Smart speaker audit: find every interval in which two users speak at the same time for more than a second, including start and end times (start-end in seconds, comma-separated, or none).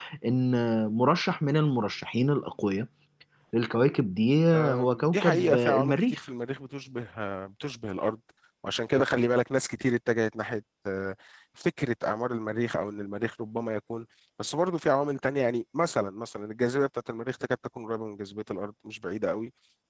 4.5-6.2